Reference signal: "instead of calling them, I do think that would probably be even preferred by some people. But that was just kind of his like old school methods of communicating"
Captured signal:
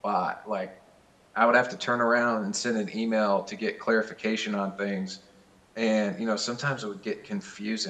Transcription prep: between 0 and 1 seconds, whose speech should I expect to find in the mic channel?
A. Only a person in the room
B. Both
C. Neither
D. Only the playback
A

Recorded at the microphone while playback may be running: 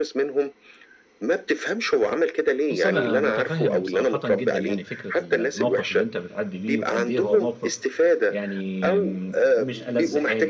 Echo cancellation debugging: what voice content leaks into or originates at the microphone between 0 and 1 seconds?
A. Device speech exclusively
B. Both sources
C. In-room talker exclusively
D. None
A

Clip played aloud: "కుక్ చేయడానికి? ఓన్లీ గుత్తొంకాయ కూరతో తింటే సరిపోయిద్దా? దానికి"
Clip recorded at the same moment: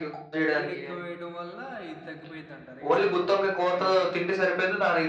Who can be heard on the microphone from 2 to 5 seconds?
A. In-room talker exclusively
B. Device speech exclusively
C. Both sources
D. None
C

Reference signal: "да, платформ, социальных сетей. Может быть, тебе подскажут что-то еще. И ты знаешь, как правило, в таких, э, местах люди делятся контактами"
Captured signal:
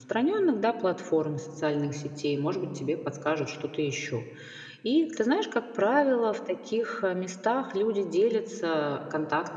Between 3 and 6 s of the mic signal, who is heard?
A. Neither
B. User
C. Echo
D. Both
C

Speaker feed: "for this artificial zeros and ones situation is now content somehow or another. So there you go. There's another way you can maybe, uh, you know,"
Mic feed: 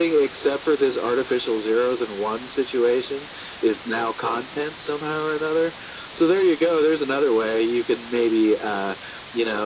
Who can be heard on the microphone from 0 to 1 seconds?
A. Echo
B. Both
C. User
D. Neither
A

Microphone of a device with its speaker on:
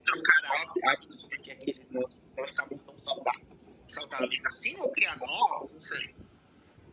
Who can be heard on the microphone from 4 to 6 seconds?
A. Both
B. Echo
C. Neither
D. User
B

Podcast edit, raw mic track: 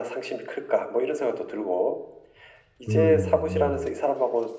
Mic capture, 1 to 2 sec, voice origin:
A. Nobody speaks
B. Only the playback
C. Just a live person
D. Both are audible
B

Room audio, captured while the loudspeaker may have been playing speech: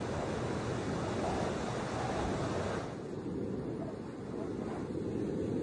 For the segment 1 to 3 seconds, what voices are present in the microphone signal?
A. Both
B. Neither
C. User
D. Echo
B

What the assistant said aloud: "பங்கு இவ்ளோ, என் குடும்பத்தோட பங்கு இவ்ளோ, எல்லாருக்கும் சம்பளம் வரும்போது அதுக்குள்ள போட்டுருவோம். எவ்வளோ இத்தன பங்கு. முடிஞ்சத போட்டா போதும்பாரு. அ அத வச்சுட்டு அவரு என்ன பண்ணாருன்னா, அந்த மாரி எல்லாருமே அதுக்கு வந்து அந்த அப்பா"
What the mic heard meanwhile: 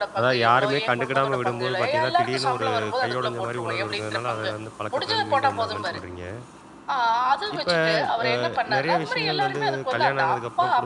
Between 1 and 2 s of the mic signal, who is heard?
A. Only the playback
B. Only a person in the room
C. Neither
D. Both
D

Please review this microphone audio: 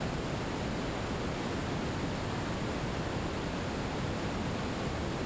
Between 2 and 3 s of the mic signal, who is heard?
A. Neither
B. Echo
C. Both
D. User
A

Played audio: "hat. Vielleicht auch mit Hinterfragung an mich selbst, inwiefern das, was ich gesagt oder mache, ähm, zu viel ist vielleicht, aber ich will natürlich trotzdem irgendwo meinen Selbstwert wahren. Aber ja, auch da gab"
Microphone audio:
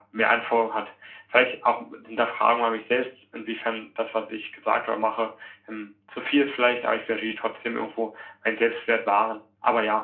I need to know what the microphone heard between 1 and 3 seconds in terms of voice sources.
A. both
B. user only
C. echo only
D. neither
C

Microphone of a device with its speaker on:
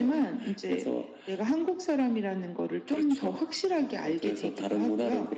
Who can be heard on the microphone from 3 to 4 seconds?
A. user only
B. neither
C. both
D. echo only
D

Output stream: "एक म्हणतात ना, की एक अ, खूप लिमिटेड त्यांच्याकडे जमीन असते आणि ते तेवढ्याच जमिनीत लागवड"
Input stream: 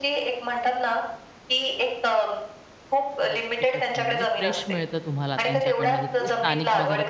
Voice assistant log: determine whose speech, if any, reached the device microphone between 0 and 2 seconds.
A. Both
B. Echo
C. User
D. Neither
B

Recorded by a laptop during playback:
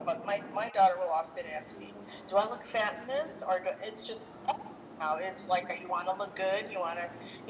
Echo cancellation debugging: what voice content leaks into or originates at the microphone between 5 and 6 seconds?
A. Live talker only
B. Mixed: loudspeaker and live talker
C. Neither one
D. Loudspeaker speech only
D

